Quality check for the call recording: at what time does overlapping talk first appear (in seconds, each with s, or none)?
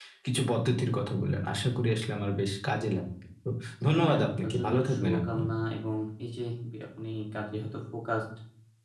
4.0 s